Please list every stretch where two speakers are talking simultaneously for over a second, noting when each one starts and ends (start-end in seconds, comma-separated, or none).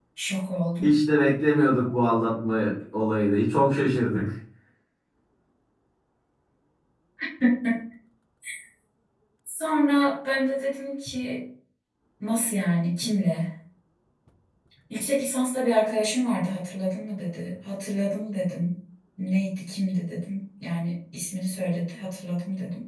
none